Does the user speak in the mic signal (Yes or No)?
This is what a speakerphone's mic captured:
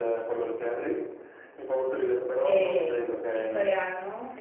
Yes